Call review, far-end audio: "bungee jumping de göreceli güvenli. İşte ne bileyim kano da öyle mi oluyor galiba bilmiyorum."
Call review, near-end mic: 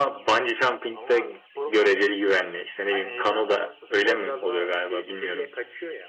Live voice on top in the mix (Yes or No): No